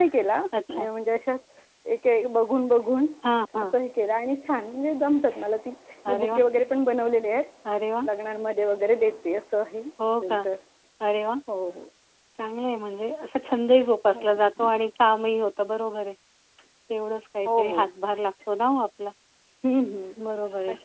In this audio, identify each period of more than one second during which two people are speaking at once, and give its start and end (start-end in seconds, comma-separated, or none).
none